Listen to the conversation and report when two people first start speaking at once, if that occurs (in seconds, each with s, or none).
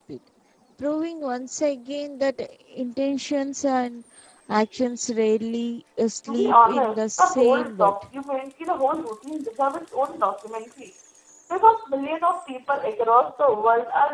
6.3 s